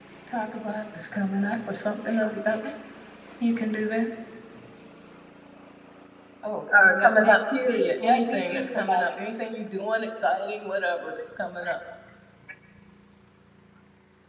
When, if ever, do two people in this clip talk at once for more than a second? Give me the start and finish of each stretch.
6.7-9.1

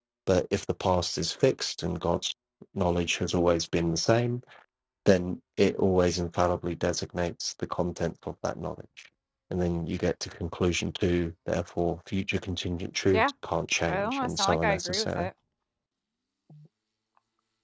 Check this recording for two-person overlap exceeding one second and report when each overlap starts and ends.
13.9-15.3

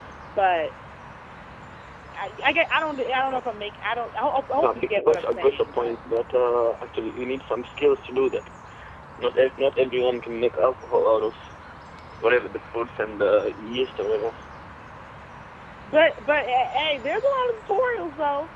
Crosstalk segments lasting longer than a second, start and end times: 4.6-5.9

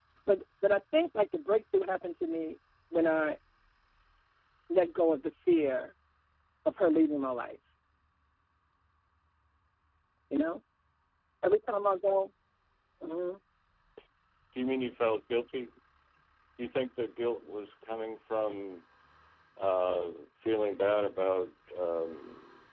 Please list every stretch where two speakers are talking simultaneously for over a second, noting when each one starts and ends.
none

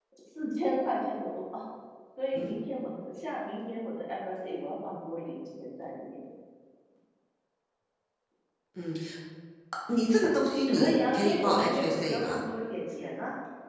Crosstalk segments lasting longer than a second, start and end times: 10.7-12.4

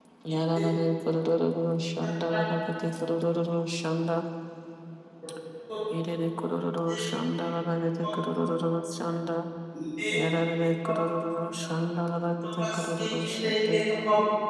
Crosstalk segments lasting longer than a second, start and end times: 12.6-13.8

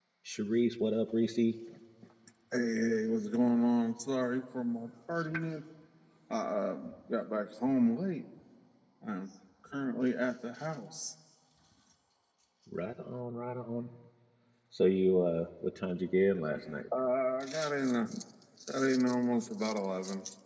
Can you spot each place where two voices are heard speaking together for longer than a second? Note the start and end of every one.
none

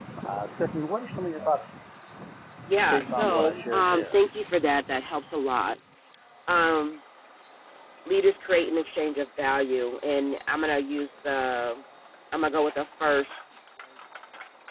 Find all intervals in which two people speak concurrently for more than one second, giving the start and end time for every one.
2.9-4.2

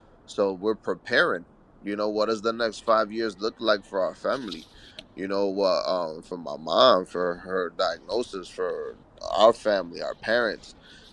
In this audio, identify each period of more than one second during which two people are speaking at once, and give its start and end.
none

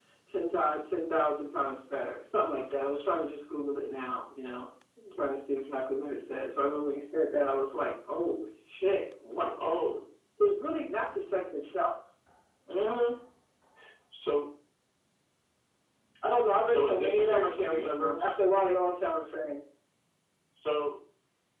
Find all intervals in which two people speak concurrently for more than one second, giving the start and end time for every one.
16.7-18.3

